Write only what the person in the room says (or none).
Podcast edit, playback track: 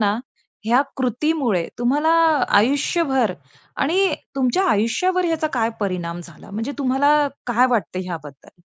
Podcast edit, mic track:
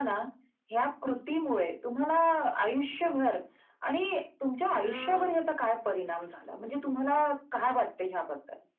तर अ,